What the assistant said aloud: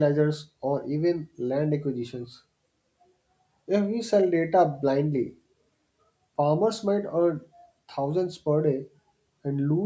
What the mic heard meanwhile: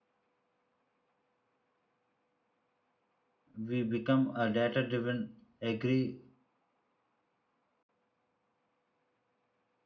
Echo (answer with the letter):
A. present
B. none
B